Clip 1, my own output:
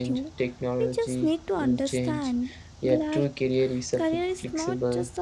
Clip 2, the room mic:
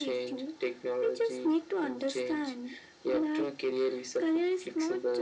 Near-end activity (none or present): none